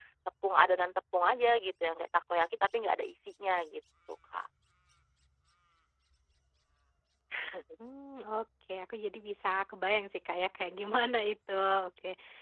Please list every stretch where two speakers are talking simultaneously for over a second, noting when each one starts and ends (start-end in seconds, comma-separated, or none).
none